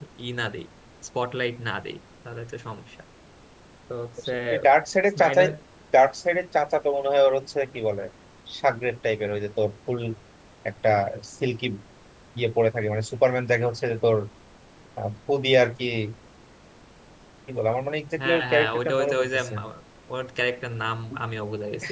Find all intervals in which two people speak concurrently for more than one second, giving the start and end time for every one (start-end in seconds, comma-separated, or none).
18.2-19.5